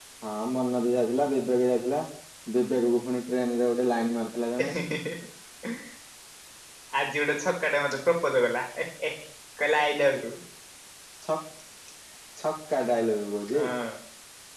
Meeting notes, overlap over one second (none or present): none